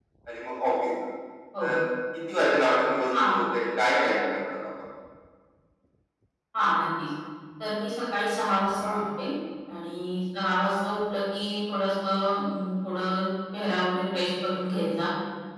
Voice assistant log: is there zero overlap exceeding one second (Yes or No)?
Yes